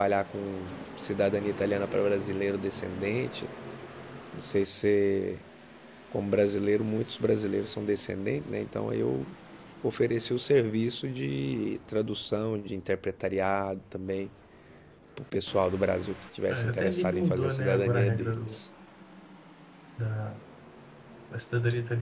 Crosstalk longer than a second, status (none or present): present